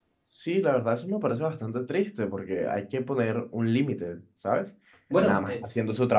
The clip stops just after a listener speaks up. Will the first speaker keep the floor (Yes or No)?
Yes